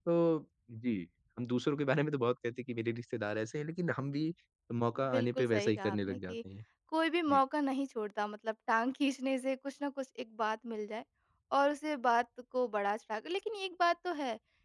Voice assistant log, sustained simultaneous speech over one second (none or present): present